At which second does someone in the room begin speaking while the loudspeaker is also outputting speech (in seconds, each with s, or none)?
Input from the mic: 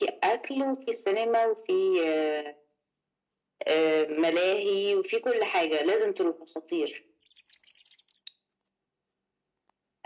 none